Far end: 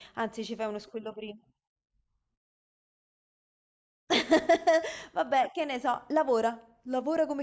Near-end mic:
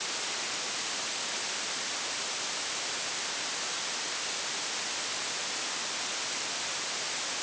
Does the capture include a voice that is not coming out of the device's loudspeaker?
No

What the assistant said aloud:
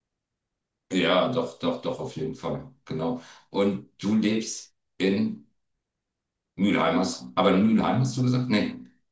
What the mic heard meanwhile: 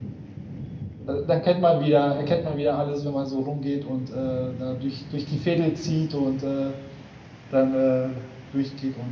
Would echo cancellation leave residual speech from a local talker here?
Yes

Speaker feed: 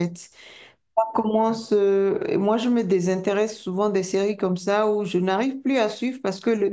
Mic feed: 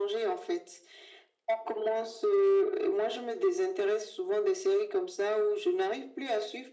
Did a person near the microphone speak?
No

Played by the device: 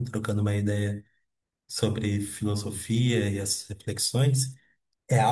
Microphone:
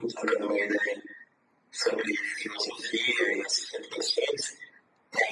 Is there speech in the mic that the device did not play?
No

